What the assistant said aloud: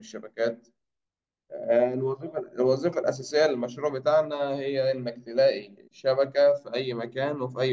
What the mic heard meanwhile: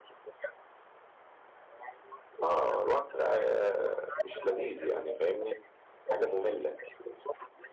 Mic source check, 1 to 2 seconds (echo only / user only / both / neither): echo only